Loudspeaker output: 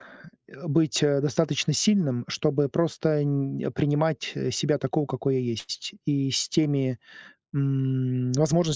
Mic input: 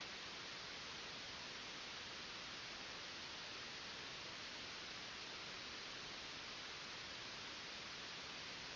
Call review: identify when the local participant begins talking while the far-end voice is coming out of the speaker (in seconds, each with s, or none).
none